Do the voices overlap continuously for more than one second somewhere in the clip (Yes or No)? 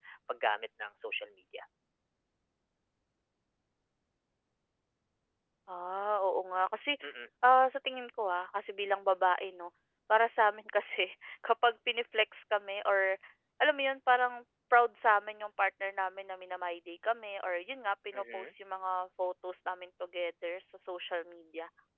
No